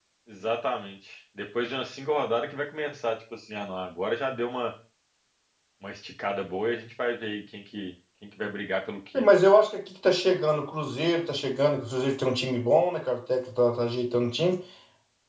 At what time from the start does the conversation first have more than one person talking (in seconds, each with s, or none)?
none